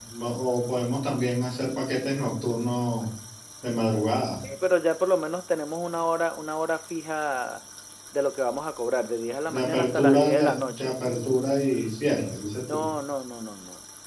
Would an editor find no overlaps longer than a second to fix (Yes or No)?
No